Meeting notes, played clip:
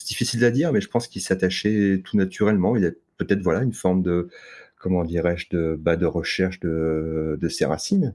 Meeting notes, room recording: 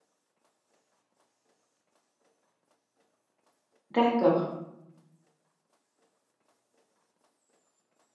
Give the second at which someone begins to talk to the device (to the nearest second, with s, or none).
4 s